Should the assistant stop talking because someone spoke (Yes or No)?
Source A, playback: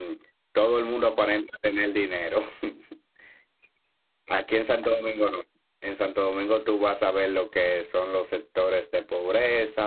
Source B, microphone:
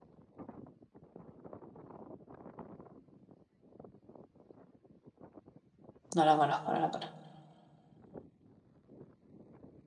Yes